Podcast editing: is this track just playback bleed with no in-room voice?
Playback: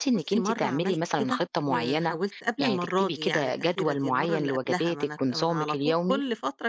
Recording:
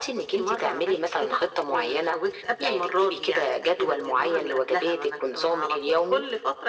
Yes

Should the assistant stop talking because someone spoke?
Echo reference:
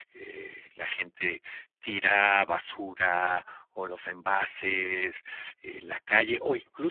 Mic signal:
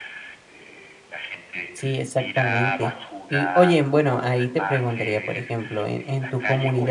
Yes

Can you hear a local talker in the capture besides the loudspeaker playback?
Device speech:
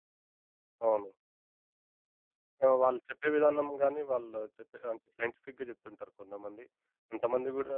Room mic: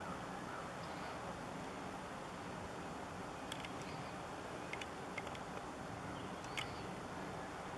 No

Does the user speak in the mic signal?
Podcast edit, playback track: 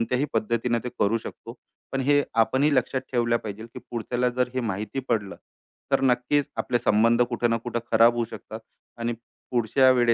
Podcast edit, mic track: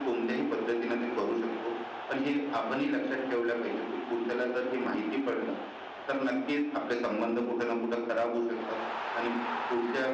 No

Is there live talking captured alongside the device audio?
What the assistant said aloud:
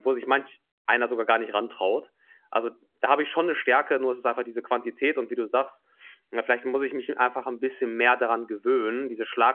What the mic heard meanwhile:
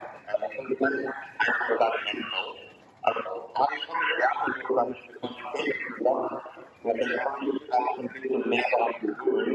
No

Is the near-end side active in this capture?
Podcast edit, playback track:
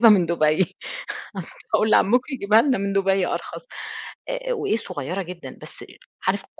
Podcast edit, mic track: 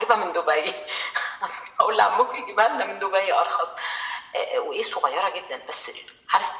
No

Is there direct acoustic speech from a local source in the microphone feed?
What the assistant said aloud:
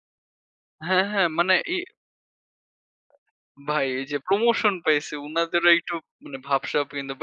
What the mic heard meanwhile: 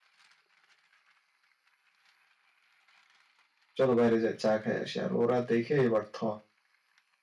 Yes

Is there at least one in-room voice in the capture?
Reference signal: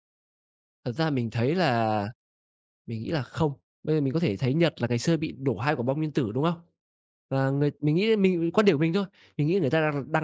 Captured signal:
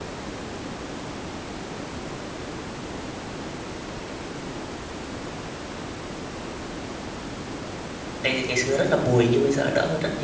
Yes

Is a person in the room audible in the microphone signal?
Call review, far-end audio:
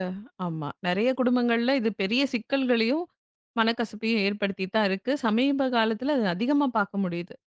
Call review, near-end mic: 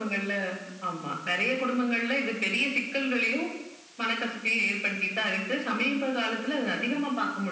No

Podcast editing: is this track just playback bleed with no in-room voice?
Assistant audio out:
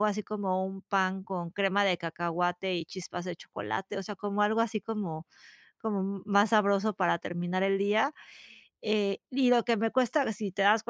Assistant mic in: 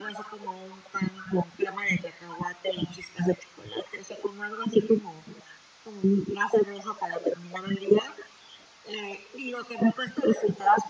Yes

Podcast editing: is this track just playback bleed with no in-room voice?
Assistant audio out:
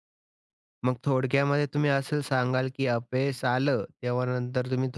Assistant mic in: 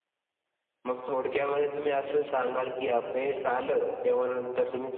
Yes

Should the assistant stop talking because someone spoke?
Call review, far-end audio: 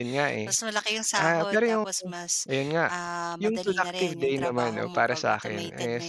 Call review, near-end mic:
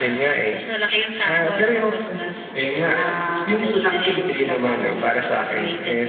No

